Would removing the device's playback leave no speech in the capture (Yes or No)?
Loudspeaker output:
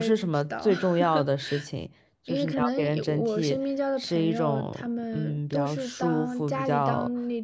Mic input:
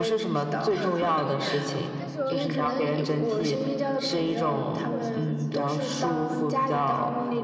No